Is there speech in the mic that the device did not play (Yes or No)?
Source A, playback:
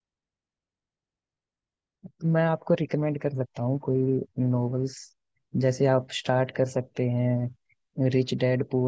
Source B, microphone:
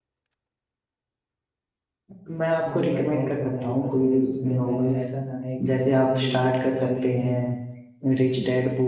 Yes